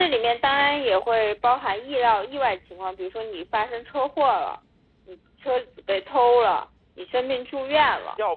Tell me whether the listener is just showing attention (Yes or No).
No